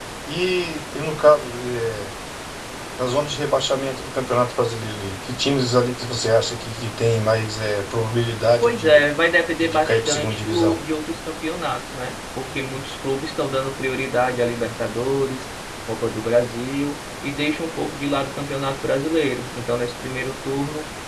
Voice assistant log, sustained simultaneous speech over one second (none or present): present